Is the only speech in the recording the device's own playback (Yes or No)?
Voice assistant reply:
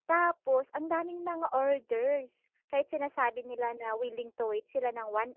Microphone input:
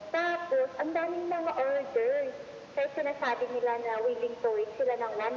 Yes